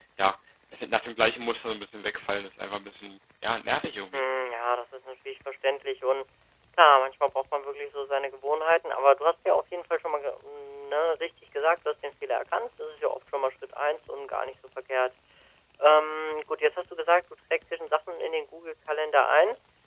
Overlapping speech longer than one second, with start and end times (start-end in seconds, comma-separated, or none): none